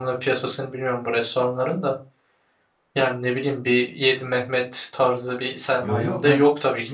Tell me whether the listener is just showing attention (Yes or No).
No